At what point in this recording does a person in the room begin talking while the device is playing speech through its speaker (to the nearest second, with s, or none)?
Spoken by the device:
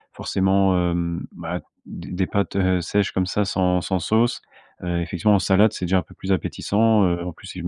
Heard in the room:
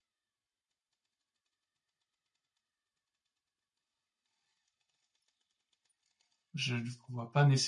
7 s